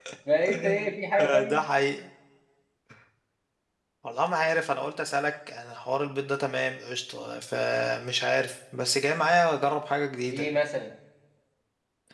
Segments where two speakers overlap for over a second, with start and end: none

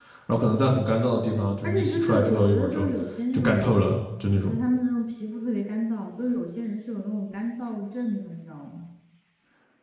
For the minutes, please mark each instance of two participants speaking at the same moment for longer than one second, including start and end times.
1.6-2.9

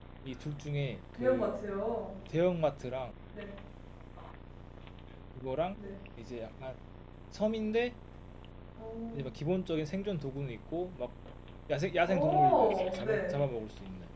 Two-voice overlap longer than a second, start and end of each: 12.0-13.3

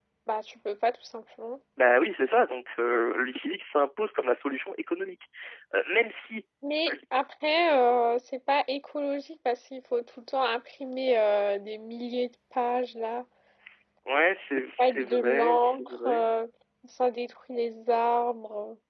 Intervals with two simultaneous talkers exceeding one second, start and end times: 14.8-16.2

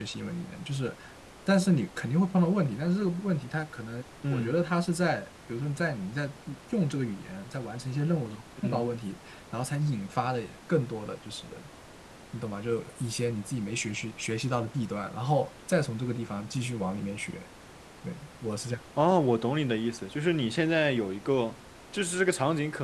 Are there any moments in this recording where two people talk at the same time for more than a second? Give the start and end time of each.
none

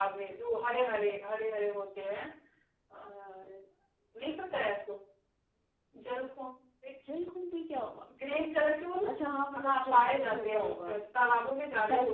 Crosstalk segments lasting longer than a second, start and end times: 9.6-10.9

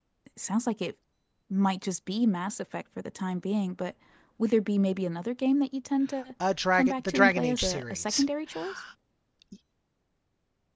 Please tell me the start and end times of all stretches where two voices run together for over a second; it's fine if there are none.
6.7-8.3

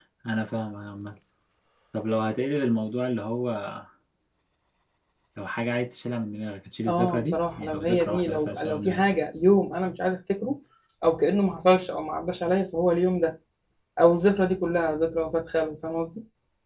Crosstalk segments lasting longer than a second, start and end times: 6.9-9.0

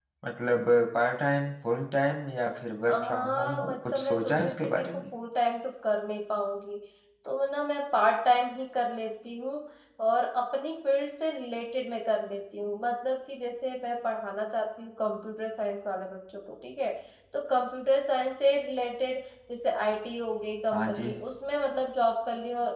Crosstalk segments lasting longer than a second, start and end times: 2.9-5.0

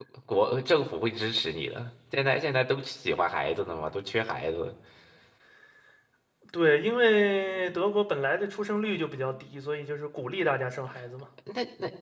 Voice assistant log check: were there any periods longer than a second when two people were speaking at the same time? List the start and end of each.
none

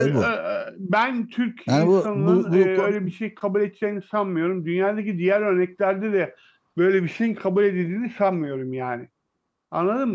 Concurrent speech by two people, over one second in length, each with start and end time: 1.7-3.1

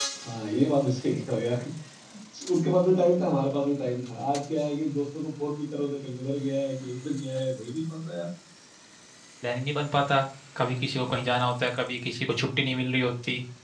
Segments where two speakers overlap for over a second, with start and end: none

